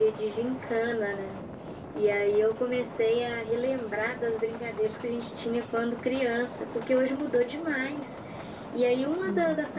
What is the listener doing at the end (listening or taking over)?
listening